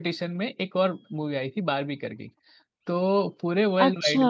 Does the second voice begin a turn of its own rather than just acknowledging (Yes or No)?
No